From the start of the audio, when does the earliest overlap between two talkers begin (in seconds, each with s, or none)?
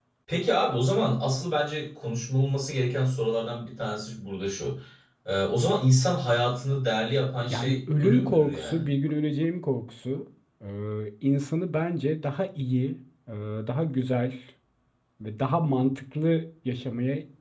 7.5 s